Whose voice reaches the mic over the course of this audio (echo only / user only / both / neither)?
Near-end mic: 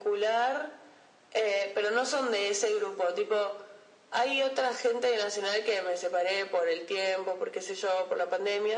echo only